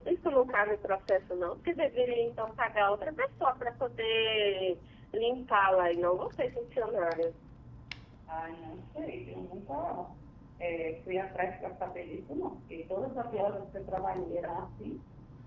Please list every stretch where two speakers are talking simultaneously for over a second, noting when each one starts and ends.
none

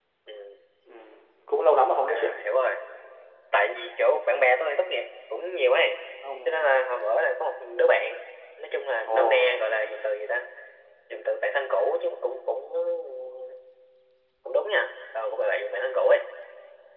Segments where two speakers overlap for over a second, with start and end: none

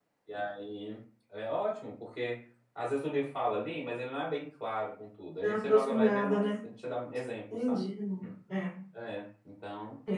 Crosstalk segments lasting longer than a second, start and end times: 5.4-6.7

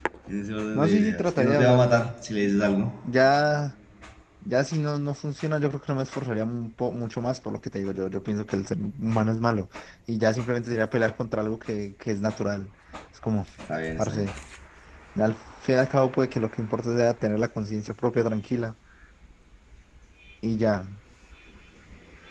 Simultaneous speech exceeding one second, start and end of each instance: 0.7-2.1

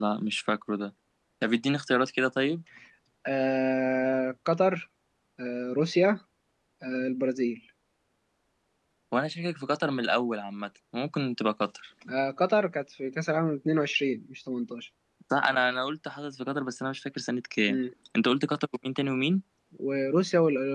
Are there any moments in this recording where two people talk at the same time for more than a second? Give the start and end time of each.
none

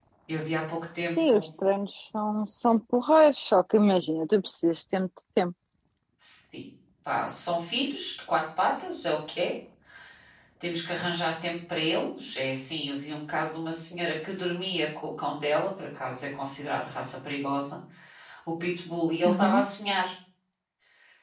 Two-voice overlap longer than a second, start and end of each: none

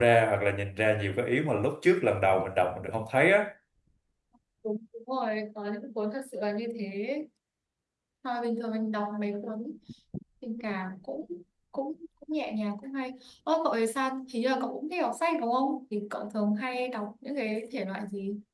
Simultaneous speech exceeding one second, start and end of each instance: none

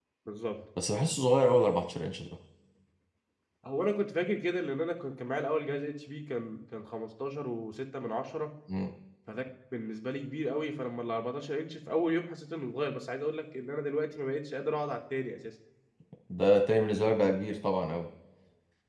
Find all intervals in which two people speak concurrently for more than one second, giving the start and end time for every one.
none

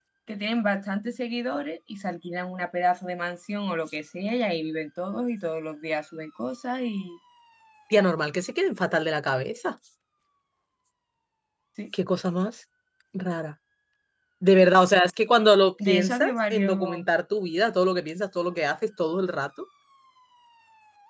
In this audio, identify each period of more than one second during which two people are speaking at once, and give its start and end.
15.8-17.1

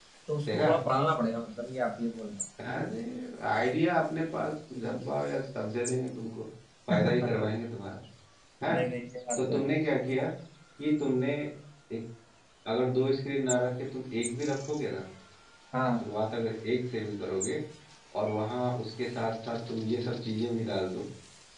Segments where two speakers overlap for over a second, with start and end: none

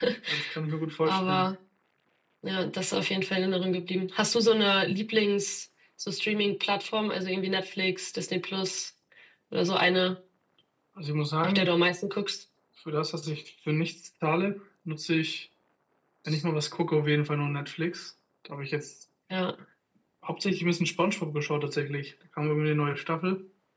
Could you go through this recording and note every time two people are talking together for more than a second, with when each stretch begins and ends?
none

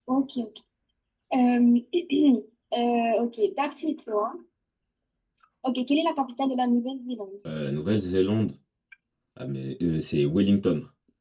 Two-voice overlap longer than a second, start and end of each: none

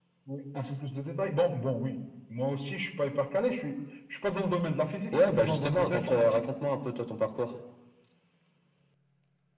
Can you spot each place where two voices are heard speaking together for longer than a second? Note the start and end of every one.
5.1-6.4

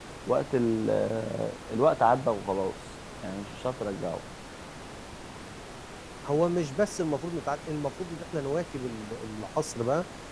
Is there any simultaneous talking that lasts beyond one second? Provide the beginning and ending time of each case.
none

